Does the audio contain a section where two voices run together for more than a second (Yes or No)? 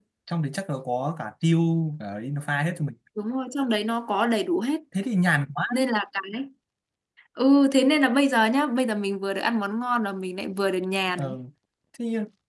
No